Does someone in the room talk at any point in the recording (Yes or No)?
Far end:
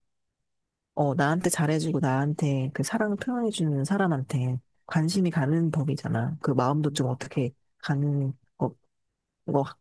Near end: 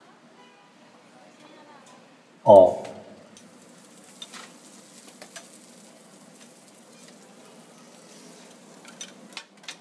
Yes